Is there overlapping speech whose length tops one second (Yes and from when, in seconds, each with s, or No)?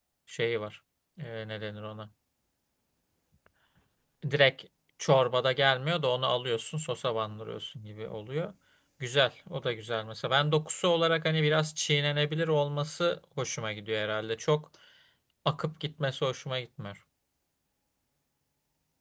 No